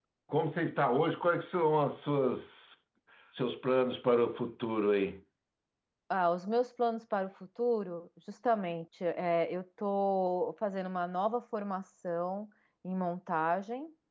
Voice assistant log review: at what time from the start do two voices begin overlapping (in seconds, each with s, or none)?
none